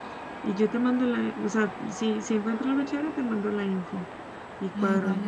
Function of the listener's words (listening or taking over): taking over